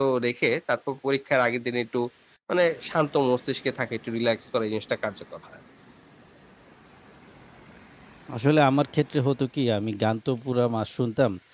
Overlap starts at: none

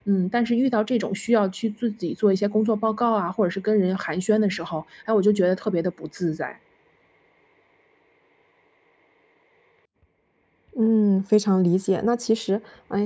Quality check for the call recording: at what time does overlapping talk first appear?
none

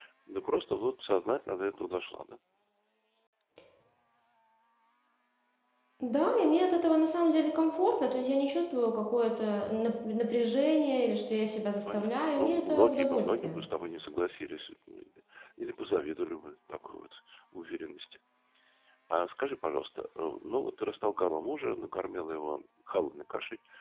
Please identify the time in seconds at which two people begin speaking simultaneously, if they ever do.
11.6 s

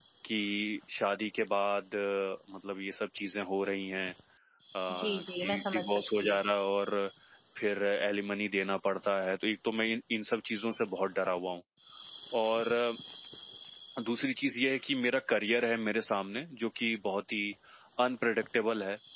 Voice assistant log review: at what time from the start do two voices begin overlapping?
4.9 s

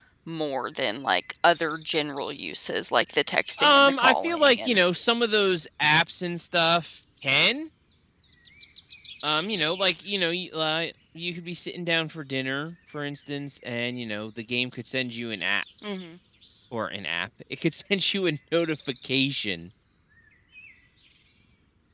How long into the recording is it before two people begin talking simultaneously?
3.6 s

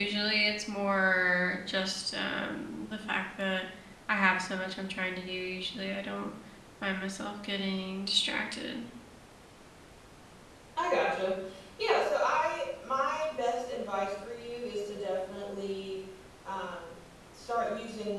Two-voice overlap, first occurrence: none

